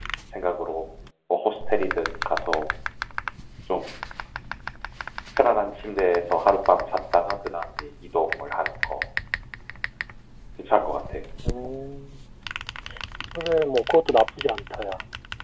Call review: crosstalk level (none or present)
none